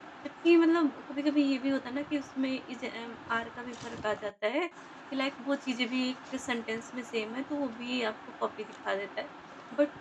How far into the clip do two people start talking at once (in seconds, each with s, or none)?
none